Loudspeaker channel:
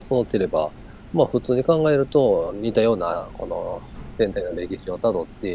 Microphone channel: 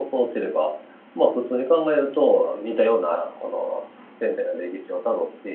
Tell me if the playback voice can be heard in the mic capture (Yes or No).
Yes